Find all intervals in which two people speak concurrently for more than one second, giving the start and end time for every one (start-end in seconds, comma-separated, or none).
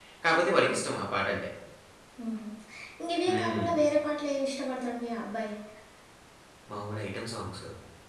none